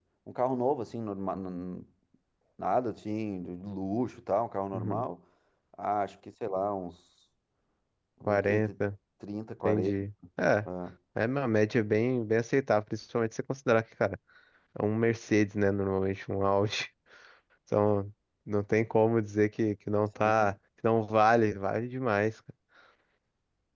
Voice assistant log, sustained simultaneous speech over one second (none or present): none